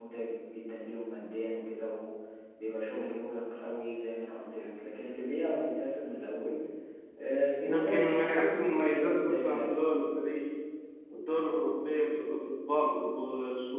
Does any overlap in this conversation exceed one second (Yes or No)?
Yes